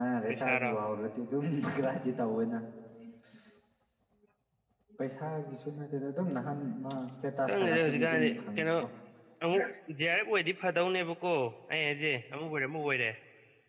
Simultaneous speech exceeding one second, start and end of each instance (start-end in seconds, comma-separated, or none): 7.5-8.7